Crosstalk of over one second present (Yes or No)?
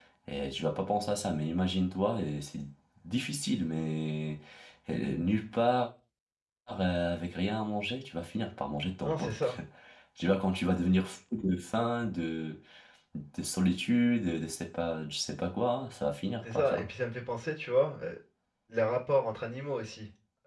No